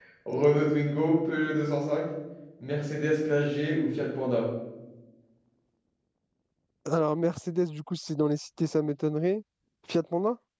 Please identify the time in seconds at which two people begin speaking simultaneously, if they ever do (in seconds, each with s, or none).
none